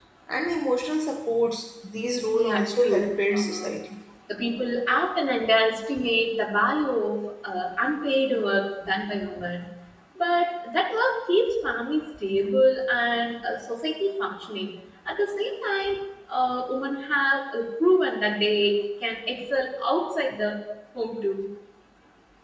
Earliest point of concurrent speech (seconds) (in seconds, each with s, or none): 2.4 s